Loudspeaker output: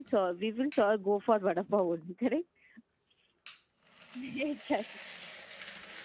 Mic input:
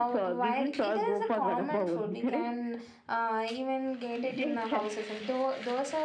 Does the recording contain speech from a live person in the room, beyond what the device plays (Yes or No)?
Yes